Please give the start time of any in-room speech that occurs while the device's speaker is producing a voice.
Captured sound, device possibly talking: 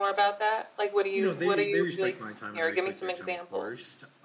1.1 s

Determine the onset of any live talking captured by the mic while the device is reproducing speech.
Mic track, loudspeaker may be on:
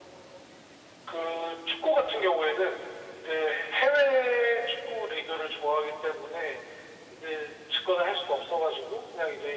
none

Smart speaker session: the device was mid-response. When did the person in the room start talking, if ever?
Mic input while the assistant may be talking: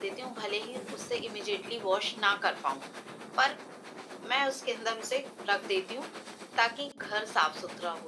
none

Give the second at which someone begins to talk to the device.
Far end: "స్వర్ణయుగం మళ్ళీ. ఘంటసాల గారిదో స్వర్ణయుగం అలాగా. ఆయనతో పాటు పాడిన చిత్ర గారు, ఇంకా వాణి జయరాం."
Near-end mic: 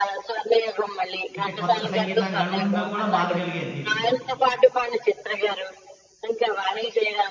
1.4 s

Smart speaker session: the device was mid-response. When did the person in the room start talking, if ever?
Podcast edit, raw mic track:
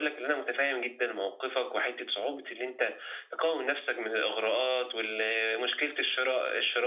none

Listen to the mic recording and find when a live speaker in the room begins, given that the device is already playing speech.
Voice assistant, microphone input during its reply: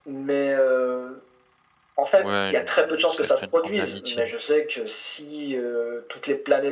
2.1 s

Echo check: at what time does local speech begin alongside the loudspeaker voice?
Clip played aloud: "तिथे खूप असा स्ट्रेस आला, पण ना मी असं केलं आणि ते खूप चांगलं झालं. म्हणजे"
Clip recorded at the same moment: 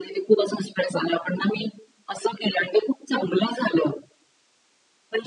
none

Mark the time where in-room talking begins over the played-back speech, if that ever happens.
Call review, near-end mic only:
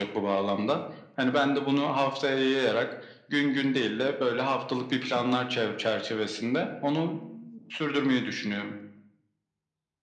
none

